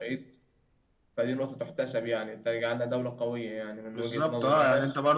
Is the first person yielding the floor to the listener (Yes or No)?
Yes